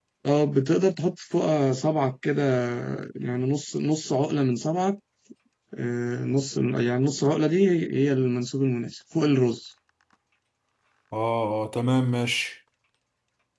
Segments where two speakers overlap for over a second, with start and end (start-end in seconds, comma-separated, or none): none